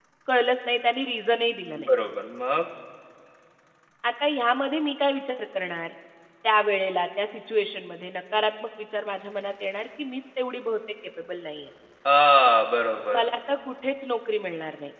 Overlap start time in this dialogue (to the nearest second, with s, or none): none